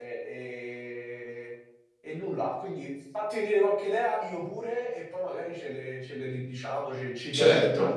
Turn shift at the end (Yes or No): Yes